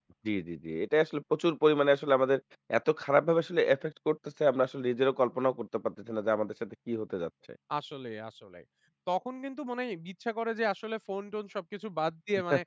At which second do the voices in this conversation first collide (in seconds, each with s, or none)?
none